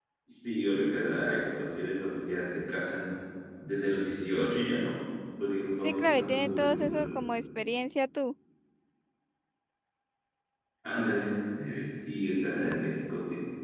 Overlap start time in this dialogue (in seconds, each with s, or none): 5.8 s